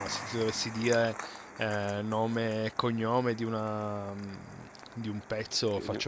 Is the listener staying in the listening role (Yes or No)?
Yes